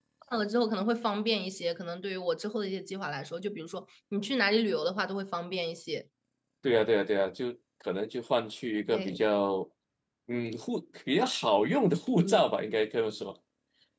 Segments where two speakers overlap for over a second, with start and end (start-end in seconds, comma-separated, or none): none